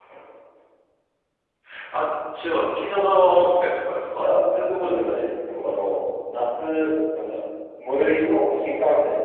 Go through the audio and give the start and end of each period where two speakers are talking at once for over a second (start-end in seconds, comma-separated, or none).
none